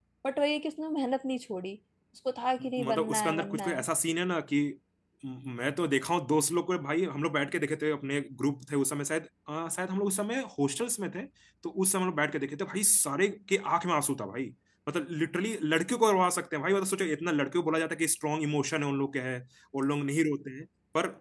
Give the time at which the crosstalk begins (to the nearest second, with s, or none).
3 s